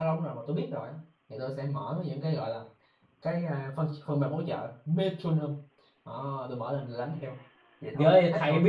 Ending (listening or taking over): taking over